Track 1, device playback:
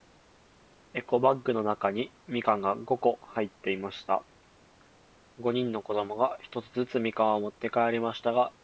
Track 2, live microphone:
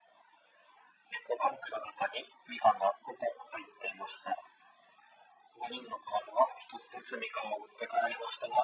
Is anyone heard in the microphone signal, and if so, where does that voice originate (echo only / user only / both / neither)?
echo only